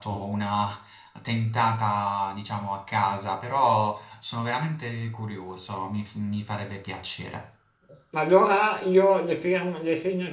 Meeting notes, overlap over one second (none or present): none